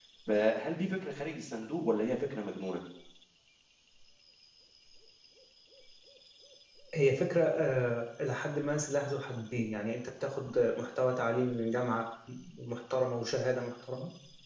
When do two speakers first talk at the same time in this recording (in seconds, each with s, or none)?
none